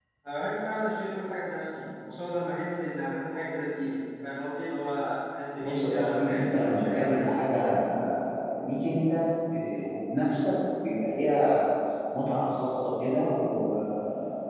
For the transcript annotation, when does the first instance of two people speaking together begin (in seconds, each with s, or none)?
5.6 s